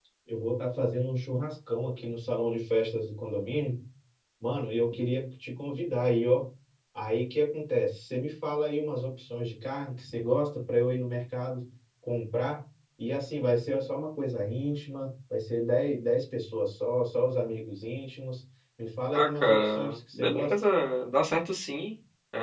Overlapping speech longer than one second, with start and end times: 19.1-20.5

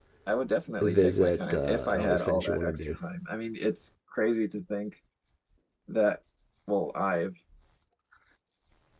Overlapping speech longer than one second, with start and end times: 0.8-2.8

